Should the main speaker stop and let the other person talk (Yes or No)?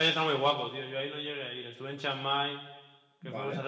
No